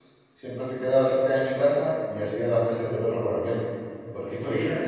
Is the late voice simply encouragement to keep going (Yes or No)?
Yes